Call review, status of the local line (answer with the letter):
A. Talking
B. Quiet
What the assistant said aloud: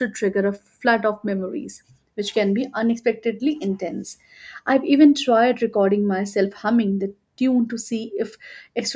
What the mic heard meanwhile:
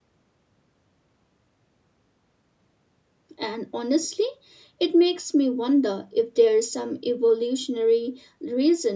A